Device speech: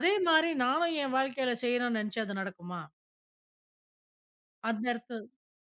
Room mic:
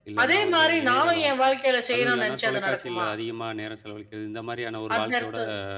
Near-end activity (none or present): present